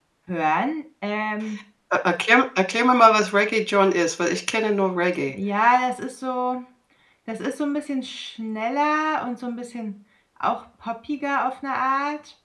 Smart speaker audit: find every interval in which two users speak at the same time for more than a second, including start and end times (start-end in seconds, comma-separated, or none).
none